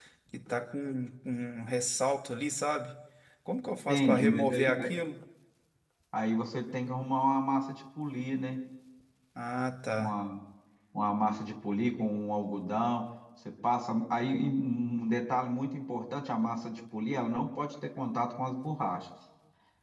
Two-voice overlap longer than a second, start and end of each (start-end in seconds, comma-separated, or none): 3.6-4.9